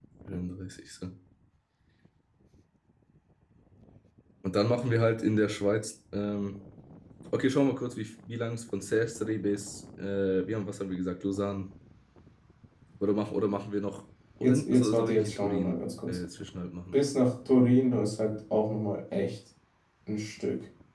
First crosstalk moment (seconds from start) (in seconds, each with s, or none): 14.4 s